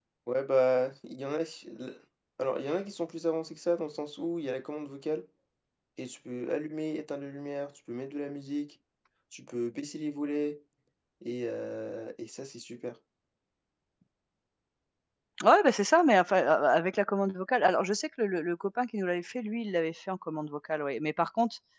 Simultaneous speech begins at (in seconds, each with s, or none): none